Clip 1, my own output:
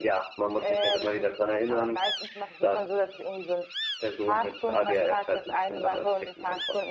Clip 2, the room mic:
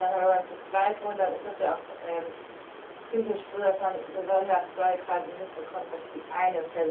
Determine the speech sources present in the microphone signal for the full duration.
user only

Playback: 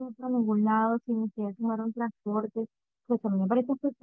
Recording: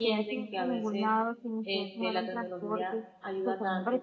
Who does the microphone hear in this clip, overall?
both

